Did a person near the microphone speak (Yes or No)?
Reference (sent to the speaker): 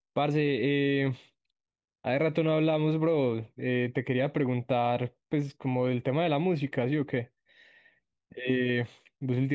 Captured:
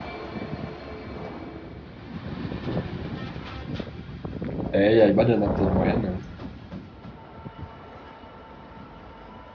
Yes